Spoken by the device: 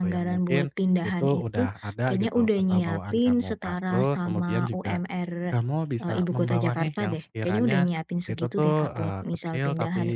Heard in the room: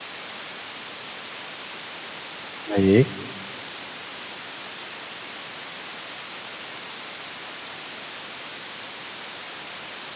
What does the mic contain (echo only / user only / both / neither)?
user only